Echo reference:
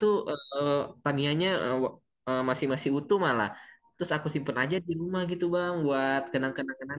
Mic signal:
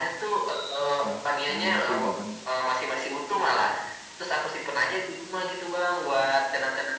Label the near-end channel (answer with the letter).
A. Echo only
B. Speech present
B